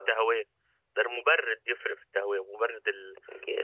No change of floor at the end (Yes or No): No